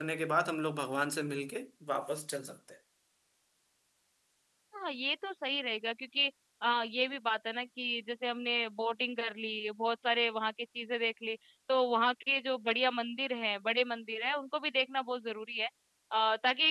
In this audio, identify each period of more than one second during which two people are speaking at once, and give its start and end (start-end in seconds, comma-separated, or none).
none